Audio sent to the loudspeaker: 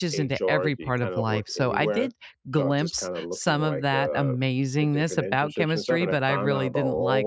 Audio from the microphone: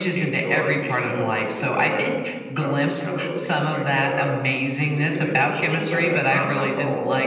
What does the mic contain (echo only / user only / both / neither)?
echo only